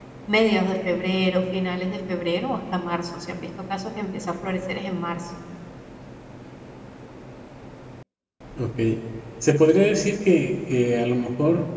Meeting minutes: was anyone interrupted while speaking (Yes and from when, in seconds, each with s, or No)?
No